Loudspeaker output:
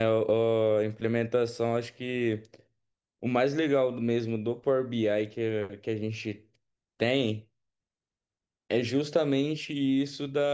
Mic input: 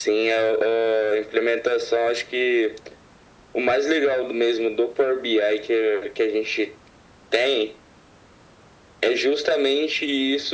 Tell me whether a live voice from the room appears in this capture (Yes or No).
No